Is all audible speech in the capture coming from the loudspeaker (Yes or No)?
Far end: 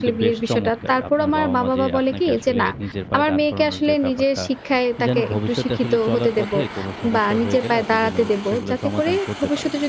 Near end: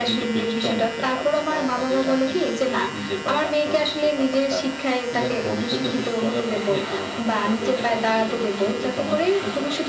Yes